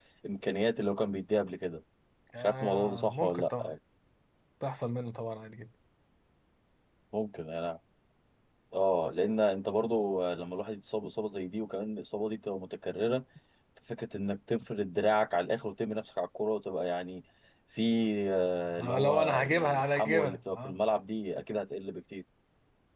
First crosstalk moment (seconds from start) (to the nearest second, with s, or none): 2 s